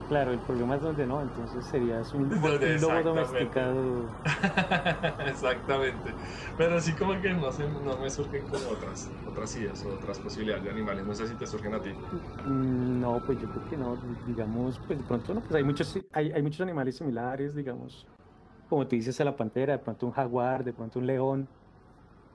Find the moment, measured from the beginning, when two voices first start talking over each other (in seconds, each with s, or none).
2.3 s